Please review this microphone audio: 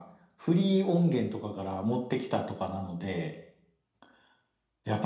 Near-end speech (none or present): none